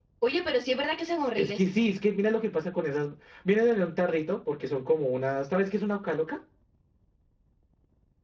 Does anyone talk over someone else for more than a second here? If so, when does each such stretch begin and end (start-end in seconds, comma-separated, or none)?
none